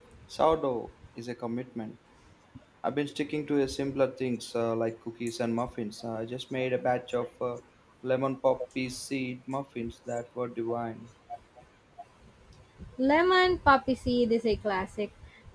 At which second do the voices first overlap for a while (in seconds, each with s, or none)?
none